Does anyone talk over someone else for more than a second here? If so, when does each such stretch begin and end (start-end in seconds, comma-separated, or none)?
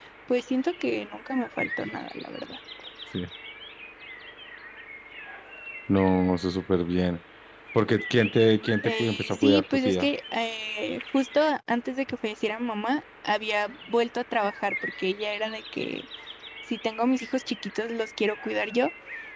8.8-10.1